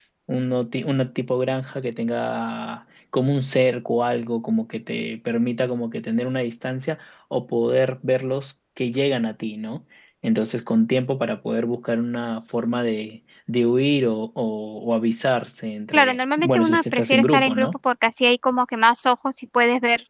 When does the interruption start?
15.9 s

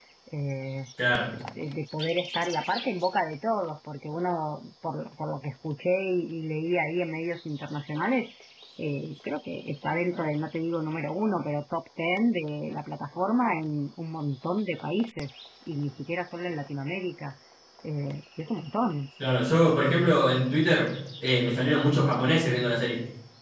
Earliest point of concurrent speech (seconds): none

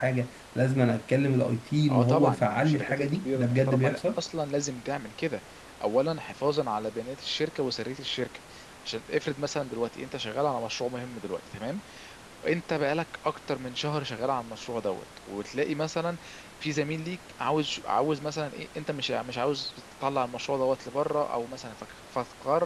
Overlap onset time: 1.9 s

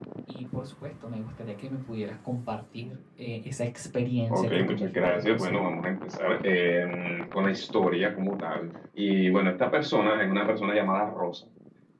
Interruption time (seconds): 4.3 s

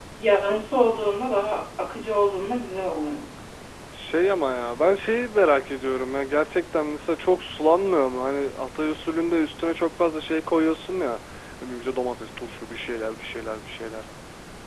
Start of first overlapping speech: none

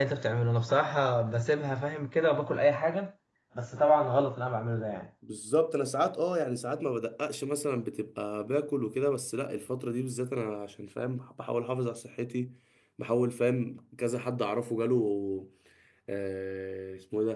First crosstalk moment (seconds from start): none

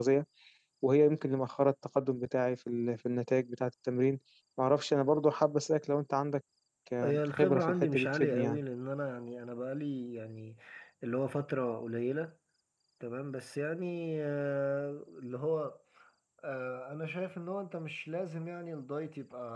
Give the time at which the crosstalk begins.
7.0 s

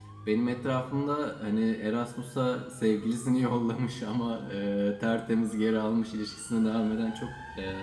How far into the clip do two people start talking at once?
none

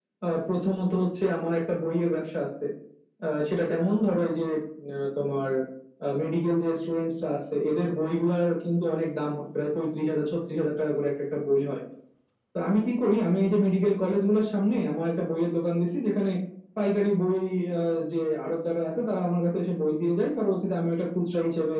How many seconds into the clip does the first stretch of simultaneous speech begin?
none

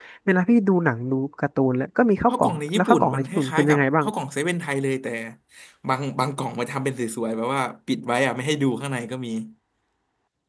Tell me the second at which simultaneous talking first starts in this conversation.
2.3 s

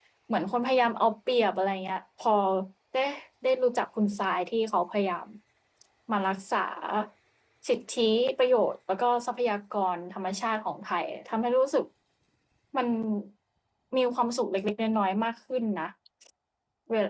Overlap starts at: none

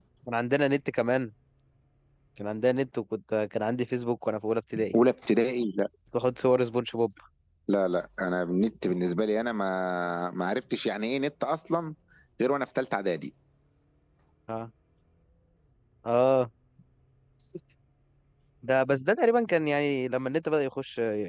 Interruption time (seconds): none

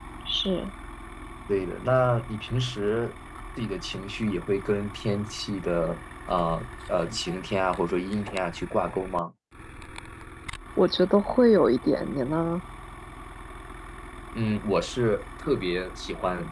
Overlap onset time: none

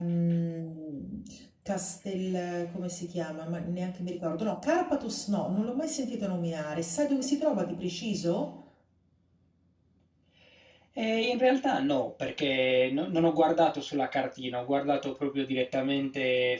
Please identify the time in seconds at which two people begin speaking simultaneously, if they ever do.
none

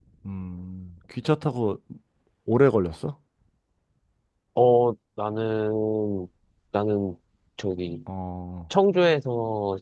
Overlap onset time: none

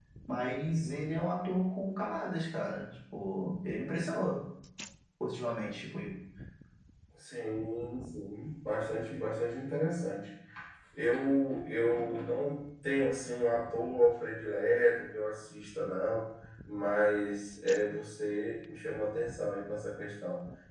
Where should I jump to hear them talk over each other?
none

